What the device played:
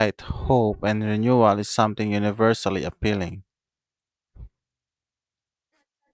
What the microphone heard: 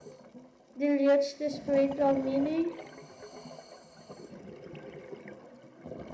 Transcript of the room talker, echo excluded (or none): dilutes the spiritual meaning